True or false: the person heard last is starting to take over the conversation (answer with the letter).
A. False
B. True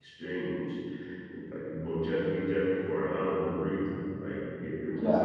A